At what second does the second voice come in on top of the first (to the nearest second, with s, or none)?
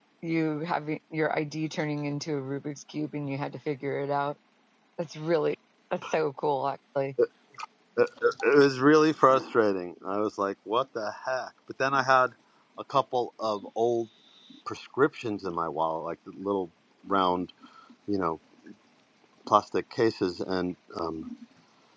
none